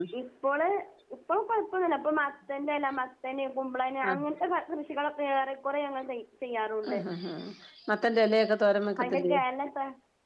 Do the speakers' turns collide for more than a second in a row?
No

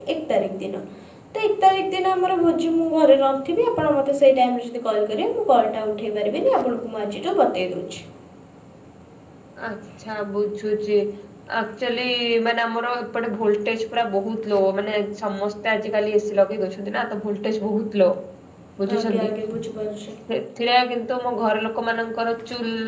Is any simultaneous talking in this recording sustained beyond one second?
No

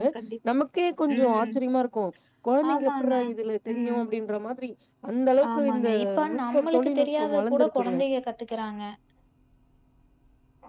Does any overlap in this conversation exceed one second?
Yes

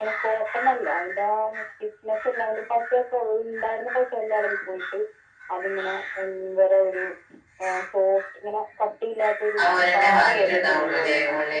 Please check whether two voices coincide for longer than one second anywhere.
Yes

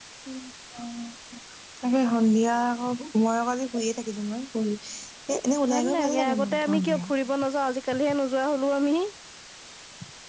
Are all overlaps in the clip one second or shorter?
No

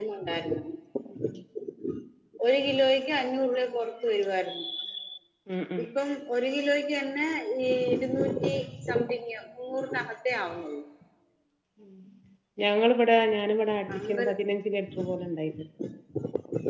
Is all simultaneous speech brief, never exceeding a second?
Yes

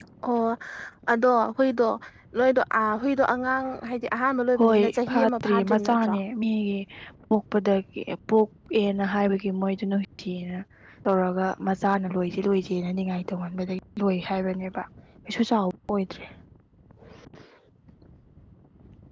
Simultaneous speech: Yes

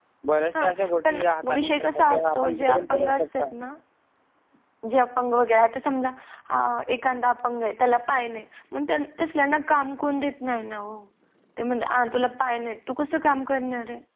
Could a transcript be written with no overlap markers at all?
No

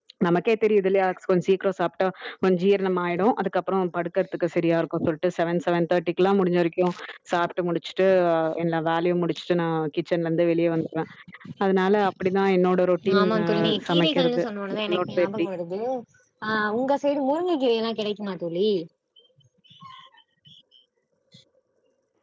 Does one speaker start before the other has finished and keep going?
Yes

